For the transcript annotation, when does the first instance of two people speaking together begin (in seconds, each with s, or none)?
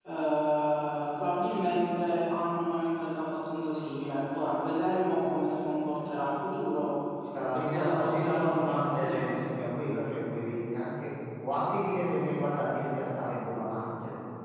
7.5 s